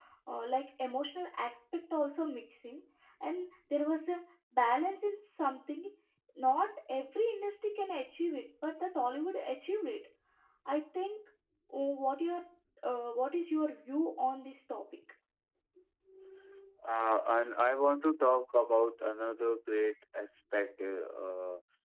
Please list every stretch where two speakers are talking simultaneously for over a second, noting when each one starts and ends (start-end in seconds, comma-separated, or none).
none